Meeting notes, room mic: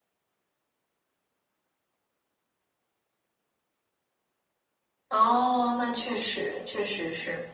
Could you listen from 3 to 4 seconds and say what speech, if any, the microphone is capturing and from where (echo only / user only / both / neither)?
neither